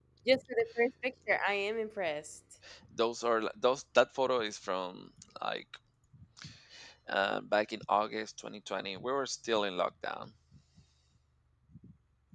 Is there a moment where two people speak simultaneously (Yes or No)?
No